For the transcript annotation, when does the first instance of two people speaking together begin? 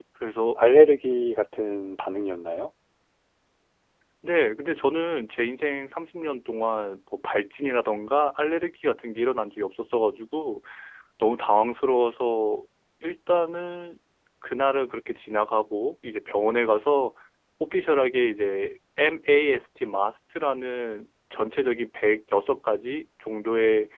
none

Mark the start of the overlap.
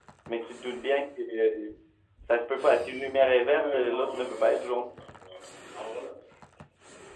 3.4 s

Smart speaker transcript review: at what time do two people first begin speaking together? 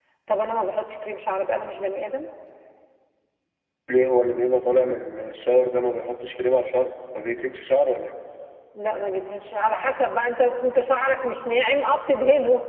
none

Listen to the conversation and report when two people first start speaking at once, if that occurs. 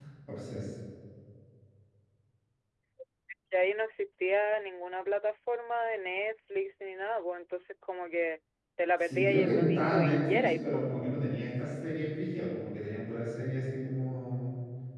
9.0 s

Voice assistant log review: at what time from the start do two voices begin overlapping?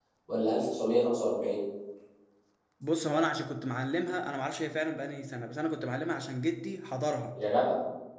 none

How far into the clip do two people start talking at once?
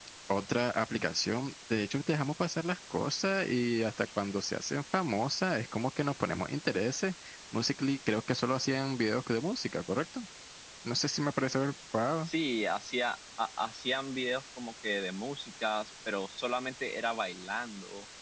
none

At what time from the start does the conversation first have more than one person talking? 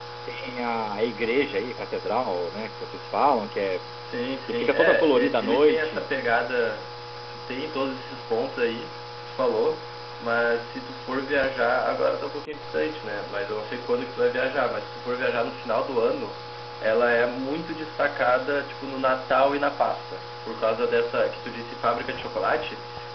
4.5 s

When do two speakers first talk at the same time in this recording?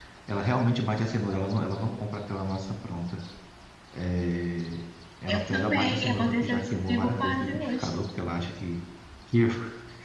5.3 s

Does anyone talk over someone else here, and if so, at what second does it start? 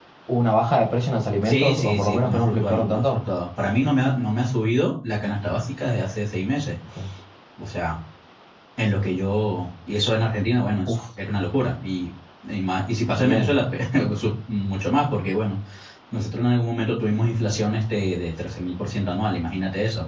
1.4 s

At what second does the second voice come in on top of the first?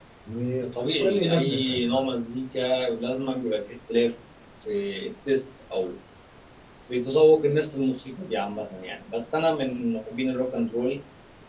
0.8 s

